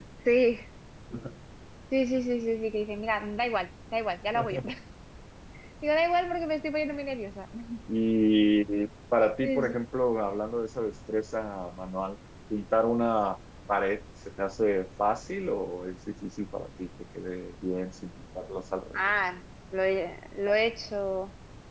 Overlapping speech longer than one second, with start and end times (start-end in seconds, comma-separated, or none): none